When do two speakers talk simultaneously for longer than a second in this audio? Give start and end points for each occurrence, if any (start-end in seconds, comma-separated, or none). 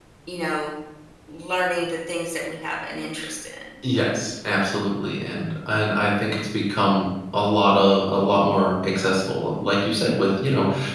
none